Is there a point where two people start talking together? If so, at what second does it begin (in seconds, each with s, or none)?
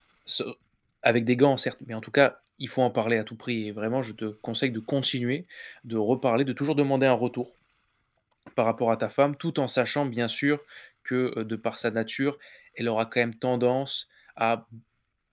none